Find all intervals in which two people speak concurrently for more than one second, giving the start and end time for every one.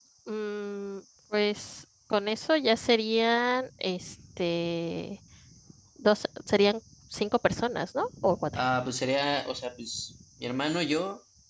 none

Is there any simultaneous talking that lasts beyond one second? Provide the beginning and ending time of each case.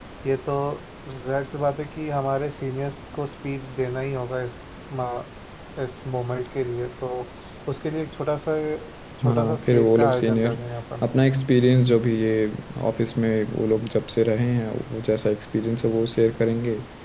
9.2-10.5

